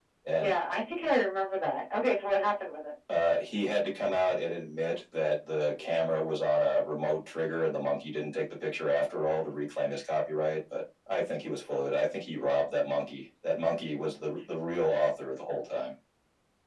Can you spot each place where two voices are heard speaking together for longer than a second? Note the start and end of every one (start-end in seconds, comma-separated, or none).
none